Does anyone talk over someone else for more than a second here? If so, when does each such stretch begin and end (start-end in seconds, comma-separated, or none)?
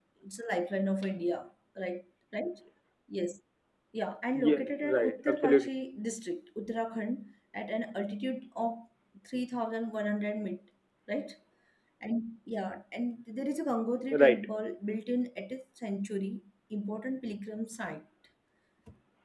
4.3-5.7